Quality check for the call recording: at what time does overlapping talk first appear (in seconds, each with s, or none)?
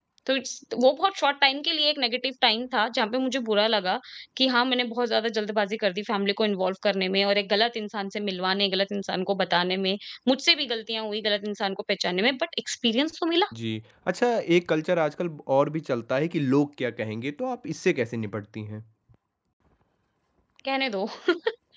none